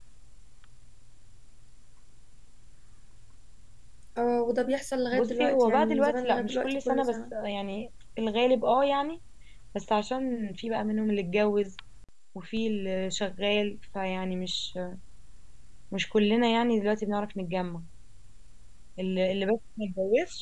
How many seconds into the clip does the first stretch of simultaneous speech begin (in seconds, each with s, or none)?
5.1 s